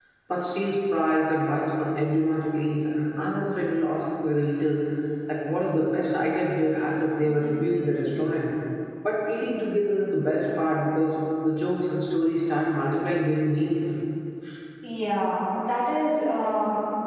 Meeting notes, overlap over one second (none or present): none